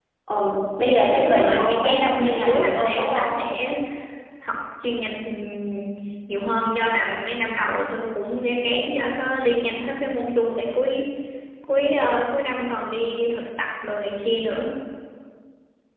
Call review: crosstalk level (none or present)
present